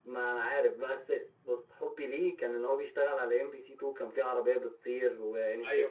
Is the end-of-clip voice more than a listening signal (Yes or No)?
Yes